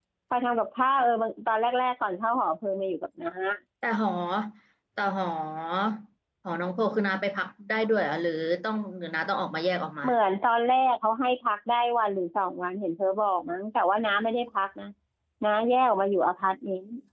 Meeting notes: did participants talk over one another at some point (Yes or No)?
No